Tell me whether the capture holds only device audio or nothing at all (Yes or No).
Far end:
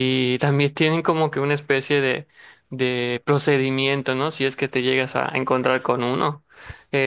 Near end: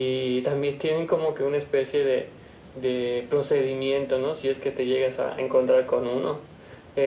Yes